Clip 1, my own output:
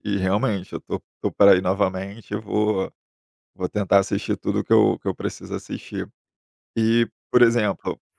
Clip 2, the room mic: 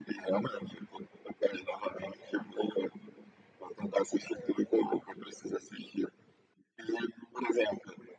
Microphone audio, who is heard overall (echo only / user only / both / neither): both